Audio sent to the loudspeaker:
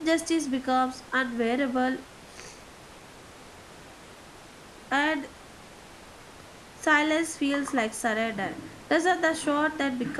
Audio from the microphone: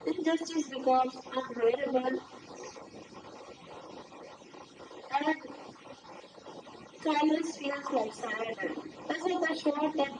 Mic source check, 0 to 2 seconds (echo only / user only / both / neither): echo only